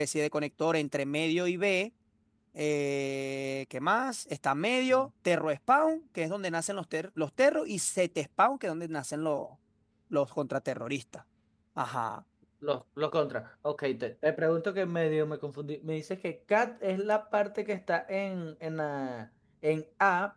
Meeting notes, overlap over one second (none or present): none